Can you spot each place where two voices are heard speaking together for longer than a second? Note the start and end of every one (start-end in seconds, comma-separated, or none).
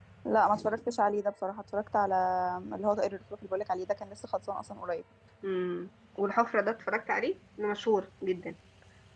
none